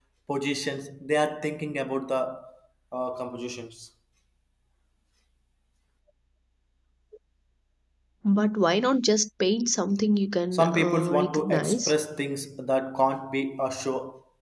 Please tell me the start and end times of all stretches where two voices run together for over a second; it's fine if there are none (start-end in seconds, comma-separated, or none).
10.5-11.9